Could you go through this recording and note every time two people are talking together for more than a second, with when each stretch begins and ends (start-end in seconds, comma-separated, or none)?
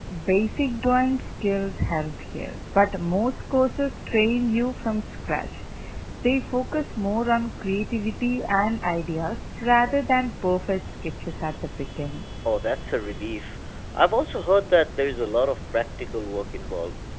none